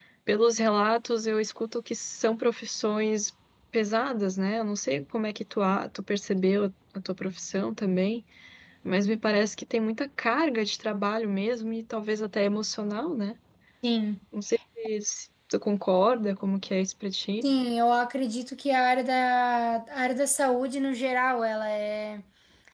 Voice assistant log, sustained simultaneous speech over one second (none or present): none